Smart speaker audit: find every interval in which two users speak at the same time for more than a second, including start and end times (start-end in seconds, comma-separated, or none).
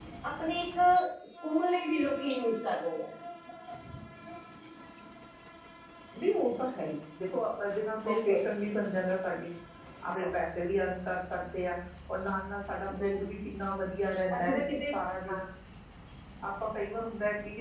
none